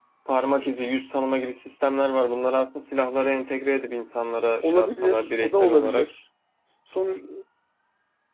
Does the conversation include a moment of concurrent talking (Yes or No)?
Yes